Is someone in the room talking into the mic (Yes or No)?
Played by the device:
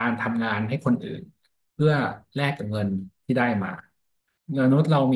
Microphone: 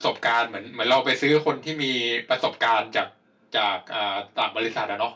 Yes